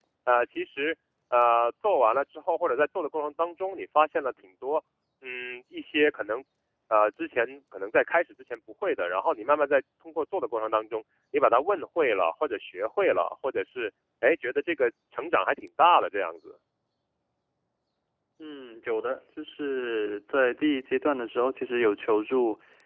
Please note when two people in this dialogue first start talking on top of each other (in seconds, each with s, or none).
none